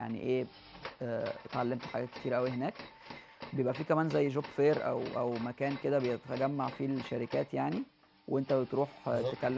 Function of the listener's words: listening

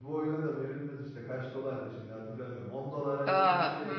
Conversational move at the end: taking over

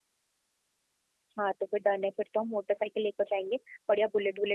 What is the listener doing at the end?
listening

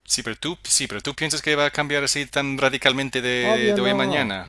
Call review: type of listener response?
taking over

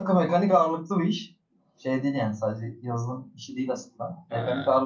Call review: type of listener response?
listening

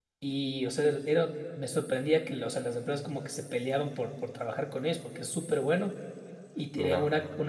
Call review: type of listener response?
listening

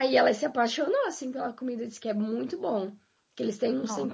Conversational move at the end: listening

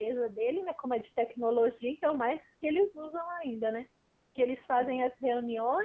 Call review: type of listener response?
listening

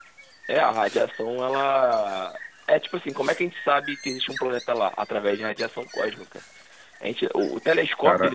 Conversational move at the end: listening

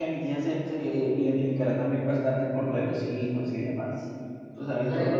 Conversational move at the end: listening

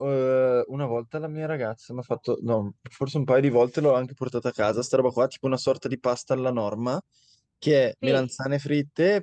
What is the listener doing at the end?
listening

